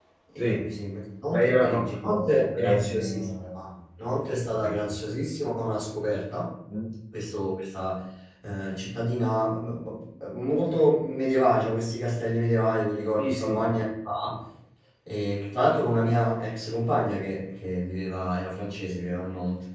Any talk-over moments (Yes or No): Yes